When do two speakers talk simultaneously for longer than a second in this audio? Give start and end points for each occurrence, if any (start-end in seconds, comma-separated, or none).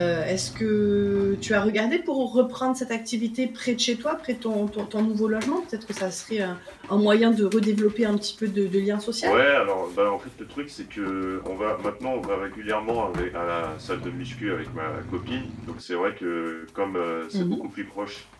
none